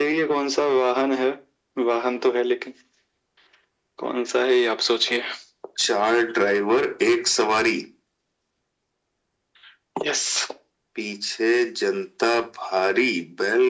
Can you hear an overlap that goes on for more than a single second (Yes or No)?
No